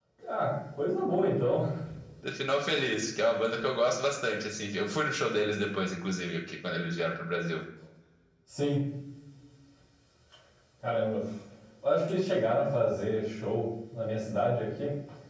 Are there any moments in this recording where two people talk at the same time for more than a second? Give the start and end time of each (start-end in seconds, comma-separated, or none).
none